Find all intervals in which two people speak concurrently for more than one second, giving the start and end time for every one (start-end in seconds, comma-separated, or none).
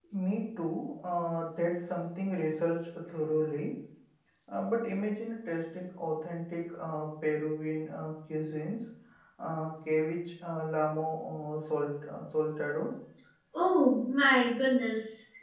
none